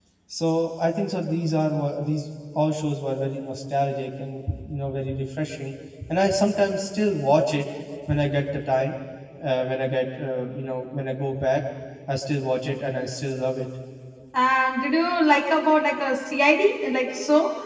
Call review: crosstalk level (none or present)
none